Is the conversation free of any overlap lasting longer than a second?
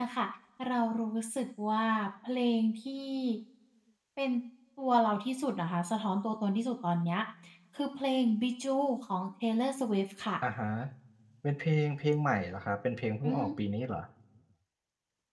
Yes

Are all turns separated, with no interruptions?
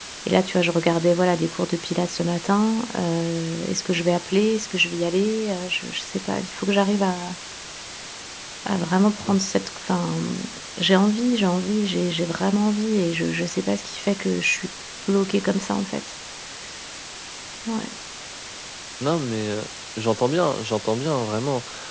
Yes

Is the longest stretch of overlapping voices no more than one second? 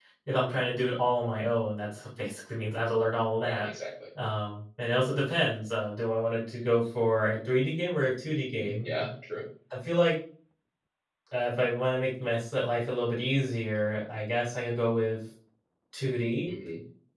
Yes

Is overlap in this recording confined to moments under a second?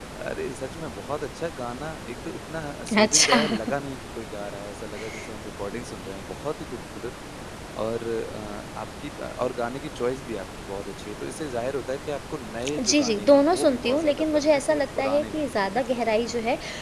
No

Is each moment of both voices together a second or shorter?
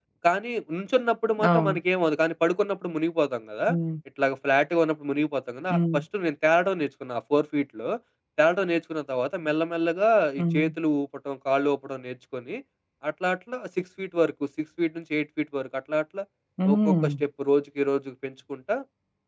Yes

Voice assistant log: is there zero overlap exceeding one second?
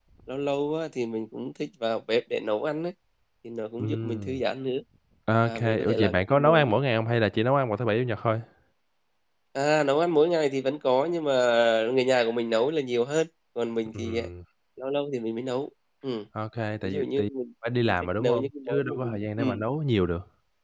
No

